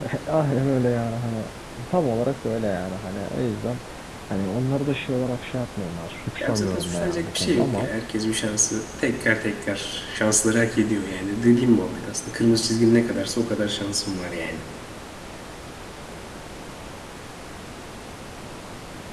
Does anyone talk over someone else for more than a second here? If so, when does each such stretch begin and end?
6.4-7.9

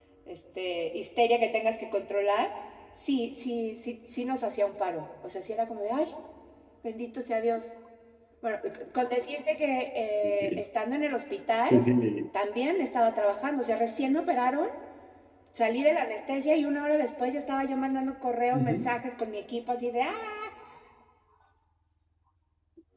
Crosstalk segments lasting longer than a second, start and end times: none

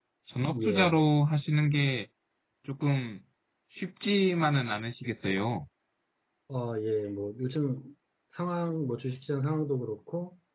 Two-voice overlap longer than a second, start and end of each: none

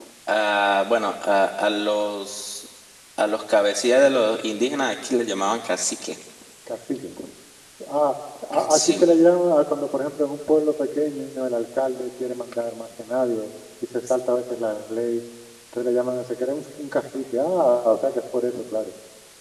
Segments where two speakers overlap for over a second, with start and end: none

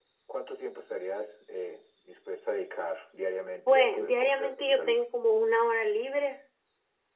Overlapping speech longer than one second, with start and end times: 3.7-5.0

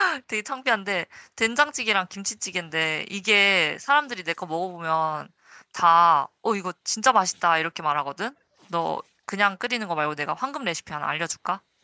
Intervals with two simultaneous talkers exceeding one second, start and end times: none

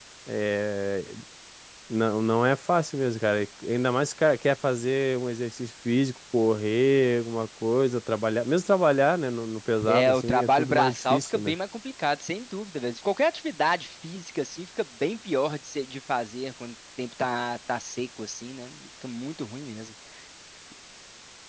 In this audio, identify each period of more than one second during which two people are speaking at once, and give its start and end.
9.8-11.6

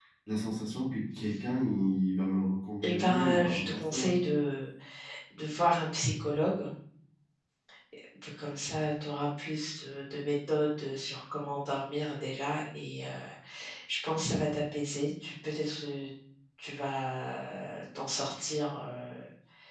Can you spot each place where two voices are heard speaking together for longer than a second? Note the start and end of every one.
2.8-4.1

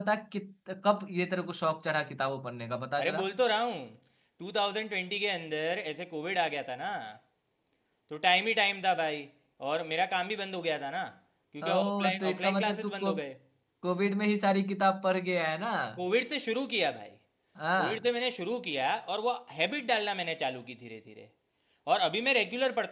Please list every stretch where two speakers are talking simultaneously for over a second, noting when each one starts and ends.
11.6-13.1

